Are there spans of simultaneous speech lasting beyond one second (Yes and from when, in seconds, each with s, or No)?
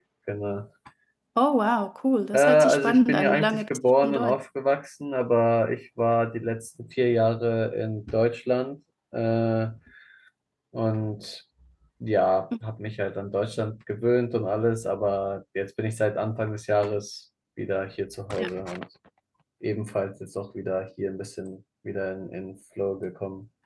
Yes, from 2.3 s